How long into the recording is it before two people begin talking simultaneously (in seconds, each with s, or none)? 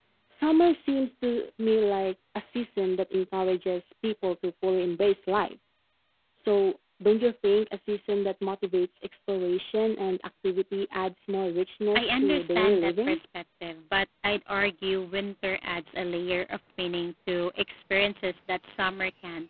11.9 s